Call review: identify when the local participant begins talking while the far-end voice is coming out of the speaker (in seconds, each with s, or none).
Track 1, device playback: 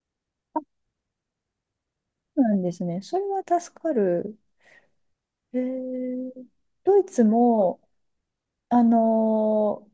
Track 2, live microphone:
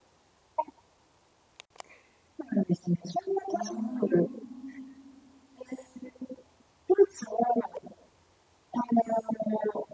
3.5 s